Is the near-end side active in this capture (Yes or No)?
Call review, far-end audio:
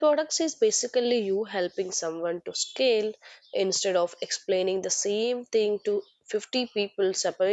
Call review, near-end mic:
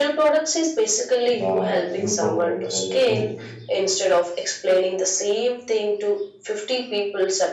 Yes